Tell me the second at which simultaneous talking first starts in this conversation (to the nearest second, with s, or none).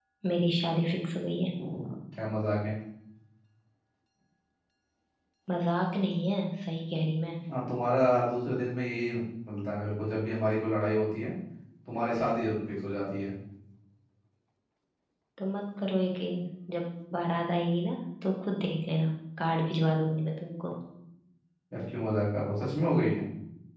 none